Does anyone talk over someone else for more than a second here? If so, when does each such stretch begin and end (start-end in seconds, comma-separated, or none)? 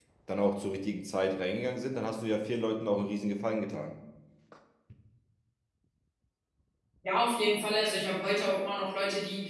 none